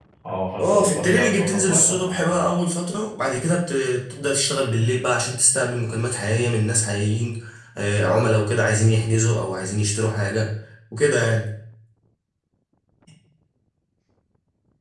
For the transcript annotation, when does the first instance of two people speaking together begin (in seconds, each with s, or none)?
0.6 s